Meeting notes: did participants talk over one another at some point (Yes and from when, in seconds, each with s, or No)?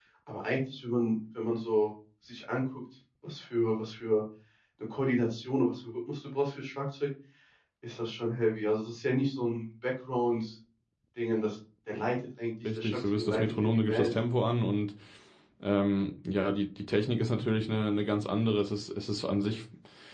Yes, from 12.7 s